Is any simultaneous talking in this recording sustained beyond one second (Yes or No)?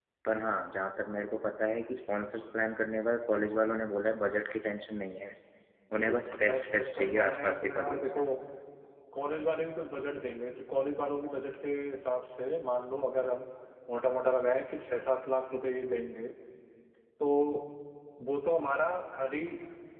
Yes